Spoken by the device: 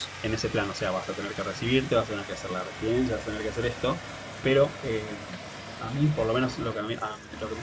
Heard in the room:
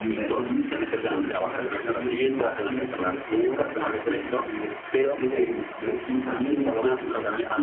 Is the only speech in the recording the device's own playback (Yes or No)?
No